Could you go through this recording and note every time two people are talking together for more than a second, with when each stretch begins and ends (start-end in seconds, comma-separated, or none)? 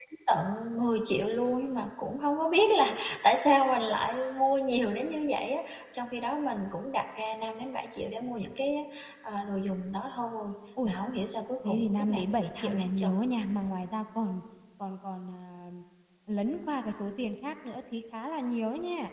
11.6-13.1